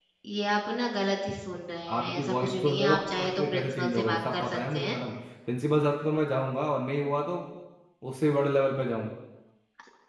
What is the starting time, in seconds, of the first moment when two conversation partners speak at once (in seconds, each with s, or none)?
1.9 s